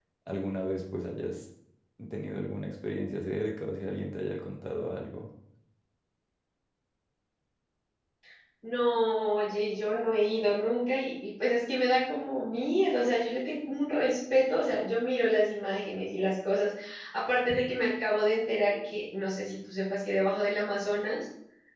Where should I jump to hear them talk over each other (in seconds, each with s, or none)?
none